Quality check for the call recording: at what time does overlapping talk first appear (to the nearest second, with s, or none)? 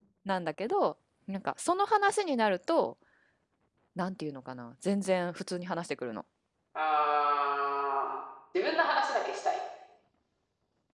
none